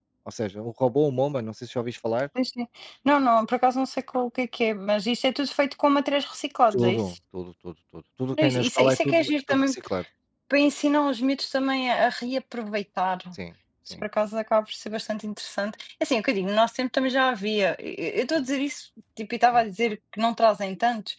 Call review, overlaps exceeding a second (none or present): present